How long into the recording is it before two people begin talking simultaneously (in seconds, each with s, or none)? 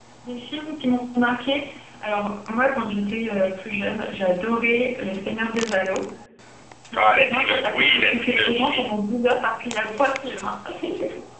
7.1 s